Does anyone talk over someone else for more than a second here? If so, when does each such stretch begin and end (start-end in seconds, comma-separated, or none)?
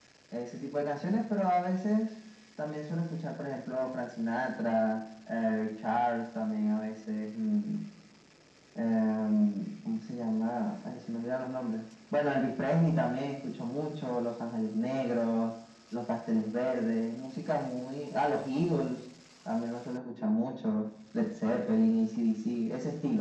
none